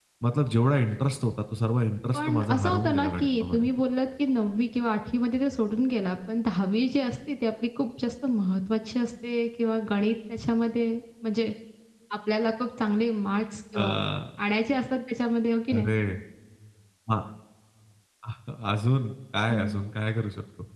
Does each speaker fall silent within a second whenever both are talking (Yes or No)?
No